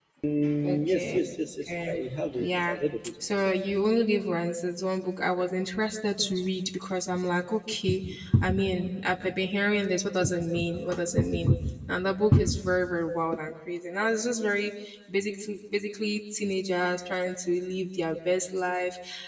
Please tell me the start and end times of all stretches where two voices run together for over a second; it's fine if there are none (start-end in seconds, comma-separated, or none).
none